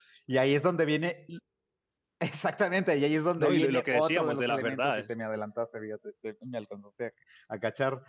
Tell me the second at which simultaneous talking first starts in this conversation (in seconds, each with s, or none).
3.4 s